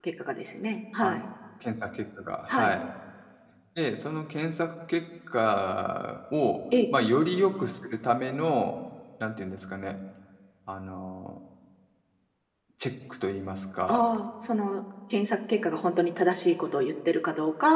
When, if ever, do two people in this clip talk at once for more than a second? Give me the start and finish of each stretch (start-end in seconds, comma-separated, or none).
none